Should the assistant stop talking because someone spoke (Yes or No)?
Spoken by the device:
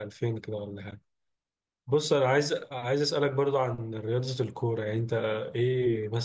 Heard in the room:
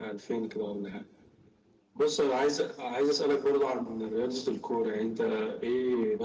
No